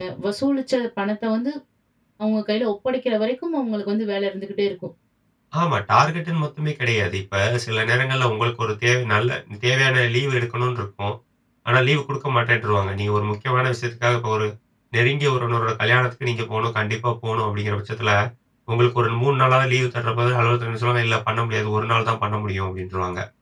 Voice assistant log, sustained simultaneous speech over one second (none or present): none